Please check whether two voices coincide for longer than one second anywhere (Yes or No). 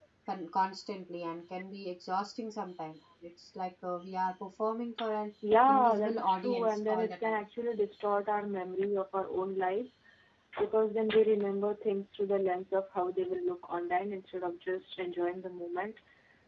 Yes